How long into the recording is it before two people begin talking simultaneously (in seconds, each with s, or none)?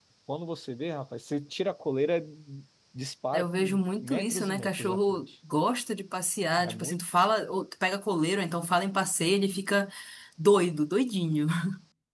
3.3 s